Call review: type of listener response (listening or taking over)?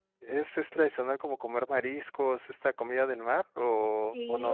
taking over